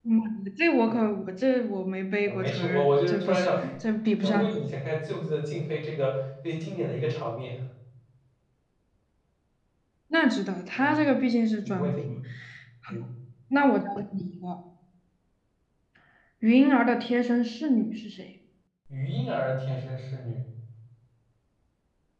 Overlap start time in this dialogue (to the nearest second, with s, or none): 2 s